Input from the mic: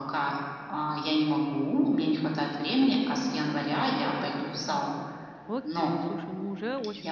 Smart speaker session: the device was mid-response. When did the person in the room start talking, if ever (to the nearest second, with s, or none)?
5 s